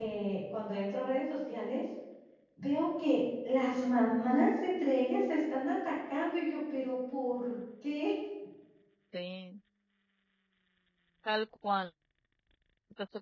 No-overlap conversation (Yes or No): Yes